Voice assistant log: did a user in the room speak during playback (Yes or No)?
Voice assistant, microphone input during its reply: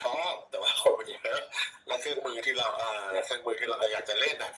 No